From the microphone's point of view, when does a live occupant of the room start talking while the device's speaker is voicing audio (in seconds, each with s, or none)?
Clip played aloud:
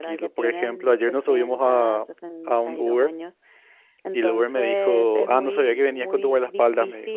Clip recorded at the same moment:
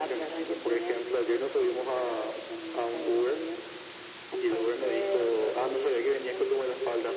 none